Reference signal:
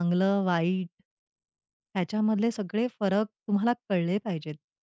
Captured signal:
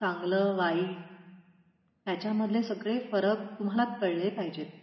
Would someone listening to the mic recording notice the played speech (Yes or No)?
Yes